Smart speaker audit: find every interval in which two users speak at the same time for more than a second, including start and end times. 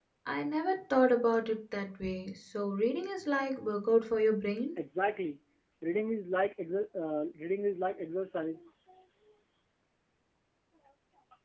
none

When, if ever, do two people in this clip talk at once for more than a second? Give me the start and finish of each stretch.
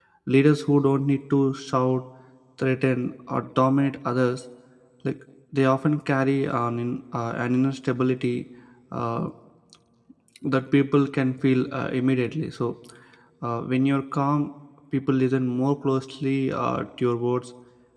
none

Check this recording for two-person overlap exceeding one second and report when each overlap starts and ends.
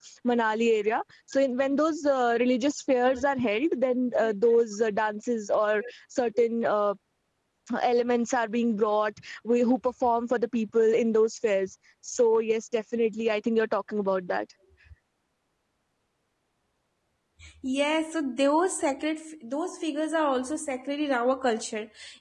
none

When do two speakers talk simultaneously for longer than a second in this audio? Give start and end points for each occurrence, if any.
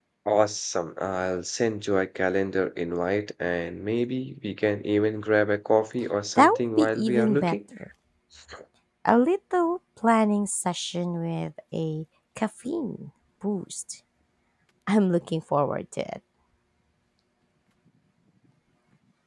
6.3-7.5

